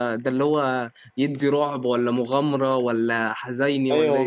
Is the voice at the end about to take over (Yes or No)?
Yes